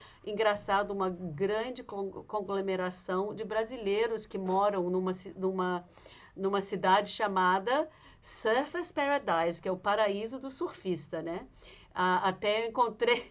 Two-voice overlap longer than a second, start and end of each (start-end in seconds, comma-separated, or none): none